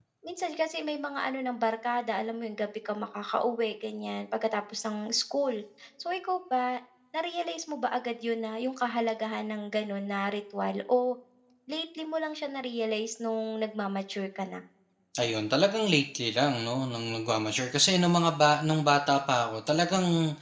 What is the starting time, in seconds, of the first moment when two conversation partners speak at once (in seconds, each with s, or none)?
none